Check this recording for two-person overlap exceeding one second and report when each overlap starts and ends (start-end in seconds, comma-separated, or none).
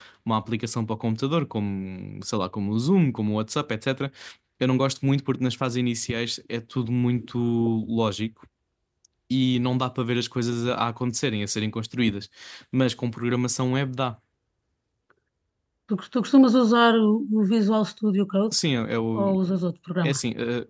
none